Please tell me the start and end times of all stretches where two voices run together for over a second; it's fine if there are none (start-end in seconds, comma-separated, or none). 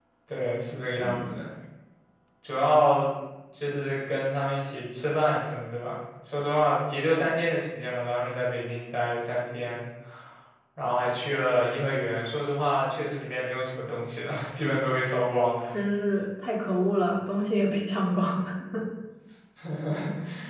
none